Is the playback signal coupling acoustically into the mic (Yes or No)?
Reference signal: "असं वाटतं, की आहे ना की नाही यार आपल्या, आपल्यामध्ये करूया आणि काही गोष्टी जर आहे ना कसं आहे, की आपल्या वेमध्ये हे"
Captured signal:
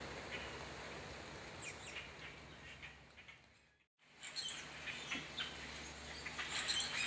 No